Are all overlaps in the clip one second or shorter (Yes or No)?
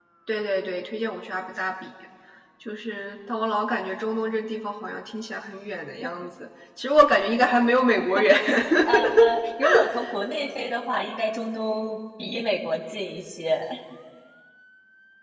Yes